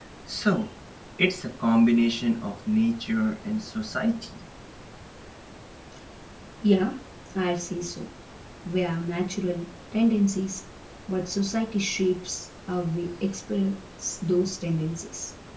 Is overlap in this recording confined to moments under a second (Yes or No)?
Yes